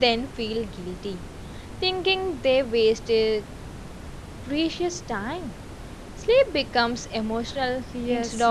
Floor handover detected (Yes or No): Yes